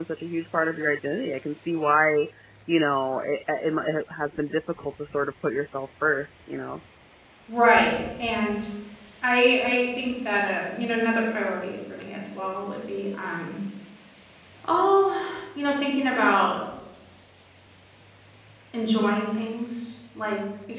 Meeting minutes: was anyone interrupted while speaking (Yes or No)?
No